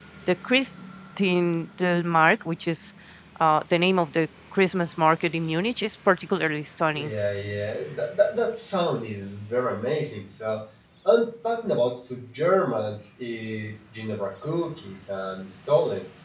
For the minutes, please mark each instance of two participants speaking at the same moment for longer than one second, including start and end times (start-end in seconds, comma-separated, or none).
none